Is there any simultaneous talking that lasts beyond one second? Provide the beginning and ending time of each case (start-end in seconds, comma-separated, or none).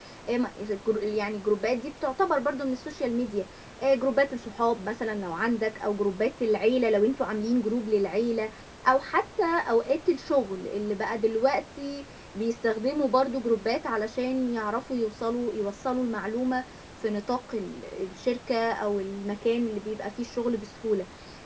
none